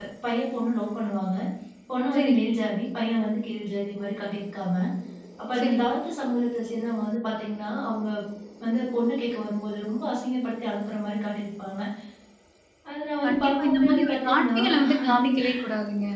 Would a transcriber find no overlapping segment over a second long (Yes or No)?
No